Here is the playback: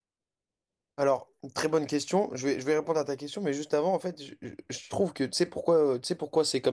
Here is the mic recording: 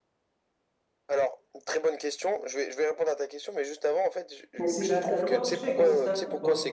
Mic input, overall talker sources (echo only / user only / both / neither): both